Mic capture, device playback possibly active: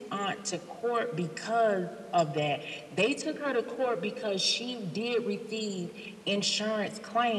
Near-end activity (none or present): none